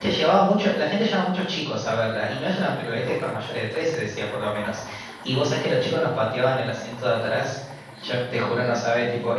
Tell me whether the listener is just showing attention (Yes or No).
Yes